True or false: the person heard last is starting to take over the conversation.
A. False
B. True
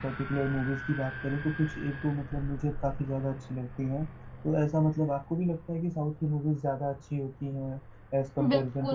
B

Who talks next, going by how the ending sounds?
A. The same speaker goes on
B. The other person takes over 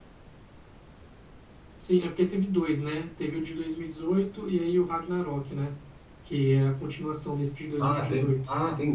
B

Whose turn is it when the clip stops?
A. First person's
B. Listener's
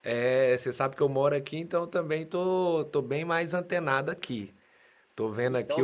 B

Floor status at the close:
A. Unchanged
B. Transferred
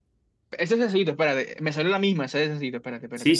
B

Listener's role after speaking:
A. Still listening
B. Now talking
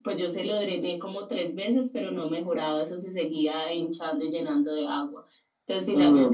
A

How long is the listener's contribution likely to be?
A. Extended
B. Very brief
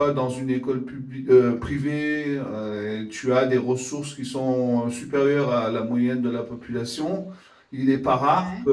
B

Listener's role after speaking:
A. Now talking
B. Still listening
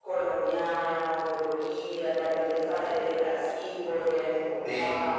A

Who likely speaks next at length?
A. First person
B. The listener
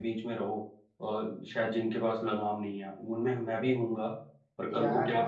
B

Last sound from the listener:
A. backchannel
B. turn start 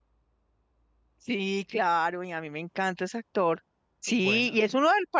A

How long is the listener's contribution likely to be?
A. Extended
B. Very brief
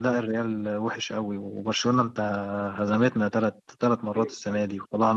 B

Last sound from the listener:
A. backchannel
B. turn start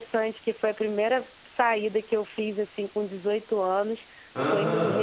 A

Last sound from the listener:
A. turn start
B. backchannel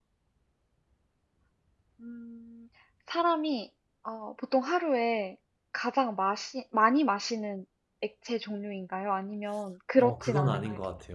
A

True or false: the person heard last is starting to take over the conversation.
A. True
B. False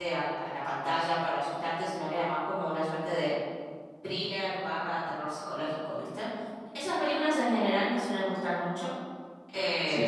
A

